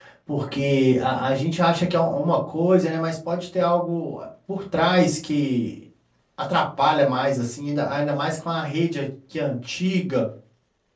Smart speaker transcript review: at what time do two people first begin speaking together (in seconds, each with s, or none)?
none